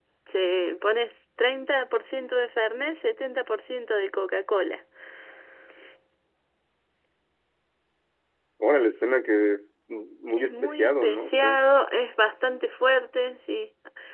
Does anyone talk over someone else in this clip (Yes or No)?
Yes